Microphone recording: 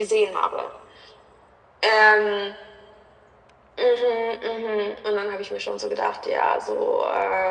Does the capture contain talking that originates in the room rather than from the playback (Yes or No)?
No